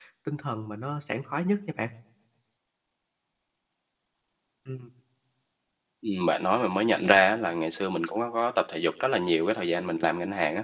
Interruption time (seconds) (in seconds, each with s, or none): none